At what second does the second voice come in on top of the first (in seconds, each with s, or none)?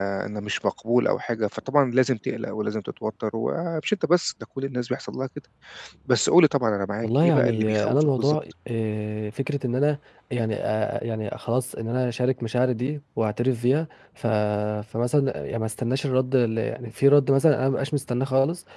7.0 s